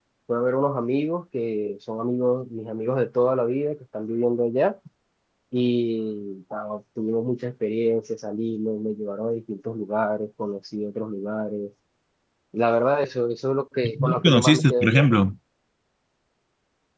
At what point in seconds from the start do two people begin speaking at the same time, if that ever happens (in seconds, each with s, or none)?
13.8 s